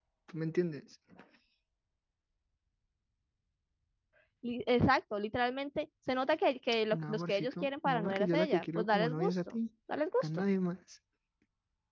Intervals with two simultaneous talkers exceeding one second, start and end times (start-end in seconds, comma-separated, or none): 6.9-9.6